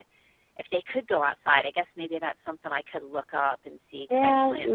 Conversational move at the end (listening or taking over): taking over